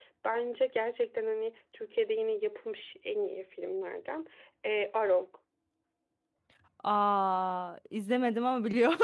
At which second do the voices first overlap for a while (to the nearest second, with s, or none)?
none